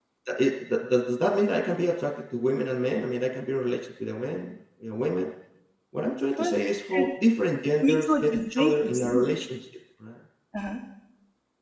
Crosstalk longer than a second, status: present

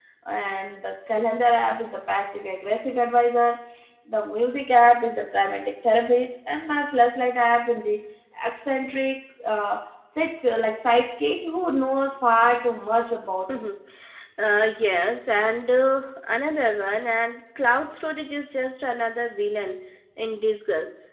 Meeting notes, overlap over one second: none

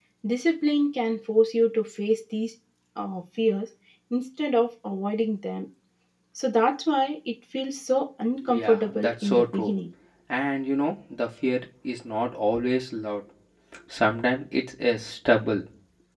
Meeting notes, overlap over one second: present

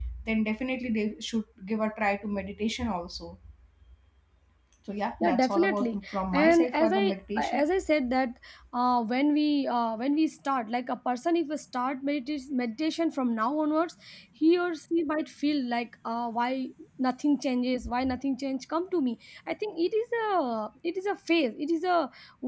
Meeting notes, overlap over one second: present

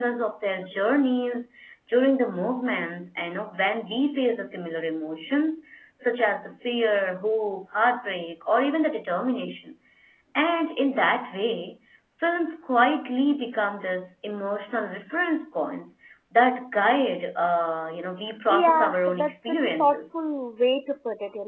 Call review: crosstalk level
present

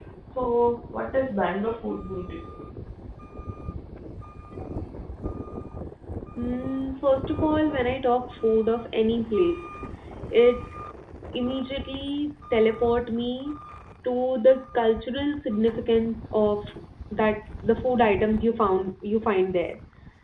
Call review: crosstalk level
none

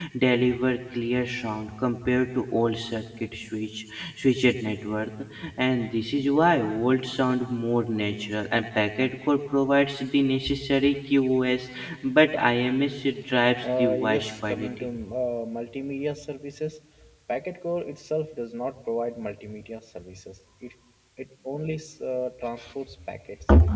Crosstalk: present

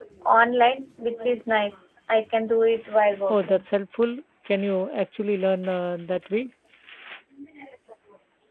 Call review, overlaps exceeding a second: none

